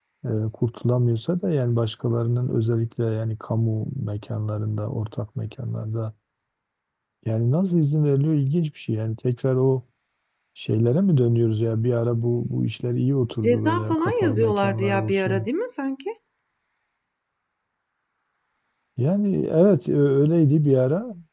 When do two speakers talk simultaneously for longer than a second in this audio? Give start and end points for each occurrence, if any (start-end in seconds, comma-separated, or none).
13.4-15.5